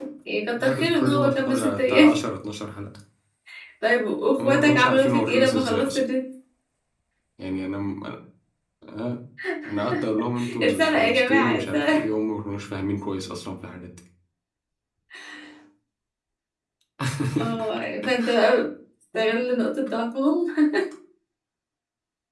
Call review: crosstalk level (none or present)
present